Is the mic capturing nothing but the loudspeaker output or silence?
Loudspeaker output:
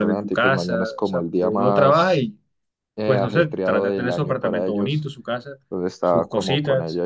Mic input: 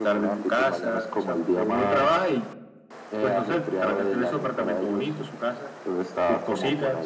Yes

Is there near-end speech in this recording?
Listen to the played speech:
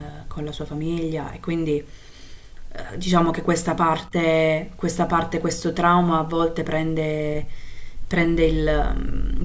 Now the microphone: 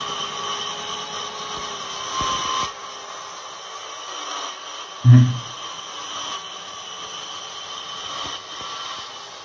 Yes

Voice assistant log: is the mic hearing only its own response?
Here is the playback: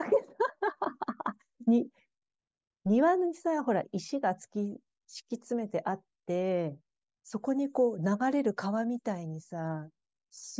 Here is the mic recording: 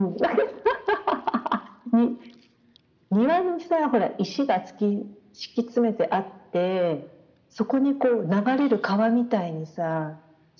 Yes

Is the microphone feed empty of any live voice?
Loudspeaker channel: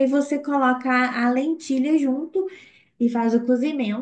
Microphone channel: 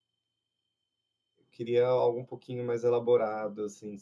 No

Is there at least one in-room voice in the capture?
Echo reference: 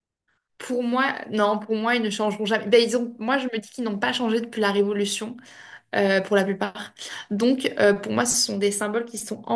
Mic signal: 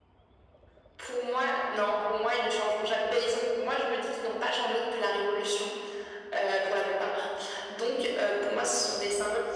No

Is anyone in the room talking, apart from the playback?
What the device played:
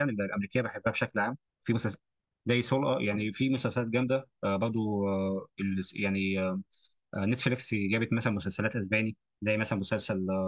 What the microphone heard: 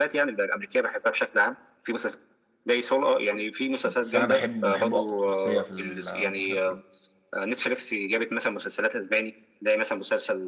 Yes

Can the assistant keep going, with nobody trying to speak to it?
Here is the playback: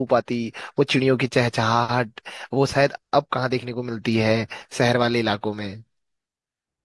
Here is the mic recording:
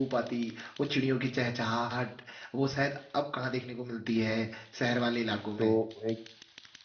No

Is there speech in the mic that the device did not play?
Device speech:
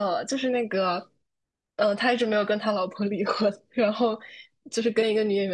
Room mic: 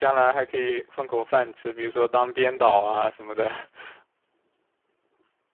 Yes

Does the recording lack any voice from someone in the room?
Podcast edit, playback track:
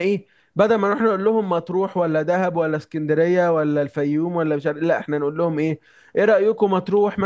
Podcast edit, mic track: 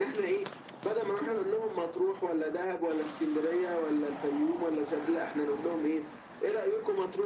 Yes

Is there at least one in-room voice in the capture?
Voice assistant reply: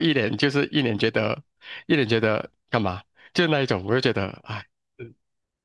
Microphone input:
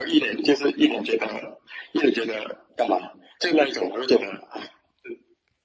No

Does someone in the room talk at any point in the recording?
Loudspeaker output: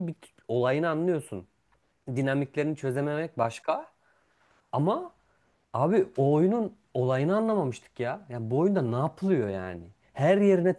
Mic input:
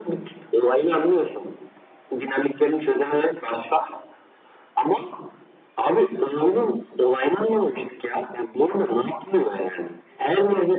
No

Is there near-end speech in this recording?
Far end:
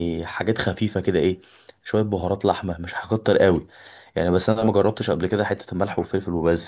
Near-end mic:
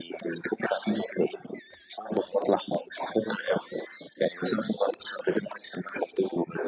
No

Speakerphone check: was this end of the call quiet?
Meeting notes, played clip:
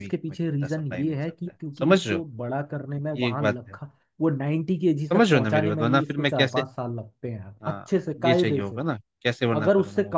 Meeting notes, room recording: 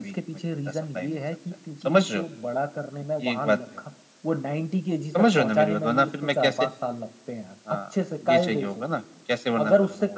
Yes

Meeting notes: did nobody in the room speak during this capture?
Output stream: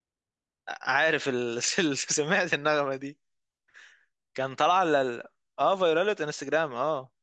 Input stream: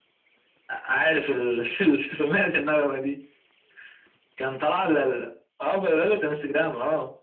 Yes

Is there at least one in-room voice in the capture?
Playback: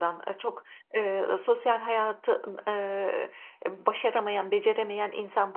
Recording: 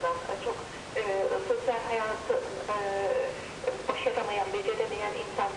No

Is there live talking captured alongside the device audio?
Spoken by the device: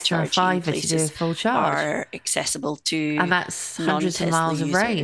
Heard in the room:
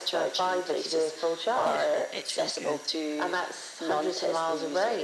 Yes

